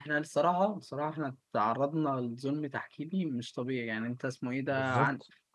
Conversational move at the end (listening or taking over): listening